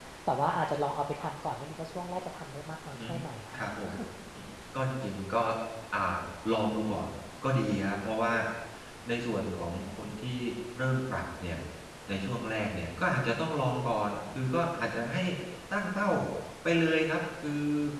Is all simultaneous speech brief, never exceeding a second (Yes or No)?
Yes